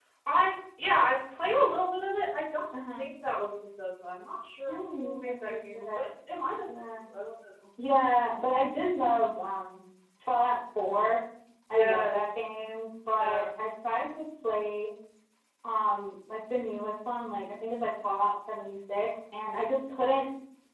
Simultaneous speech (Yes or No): Yes